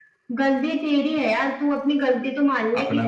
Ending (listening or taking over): listening